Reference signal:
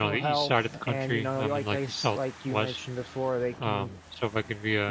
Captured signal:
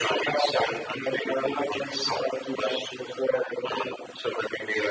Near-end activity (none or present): none